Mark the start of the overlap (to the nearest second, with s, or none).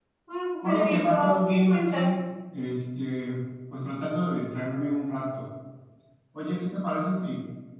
1 s